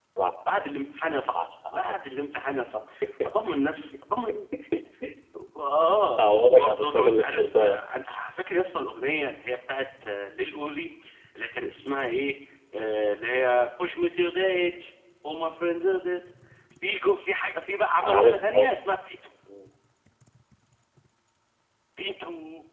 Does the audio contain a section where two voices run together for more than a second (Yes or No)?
Yes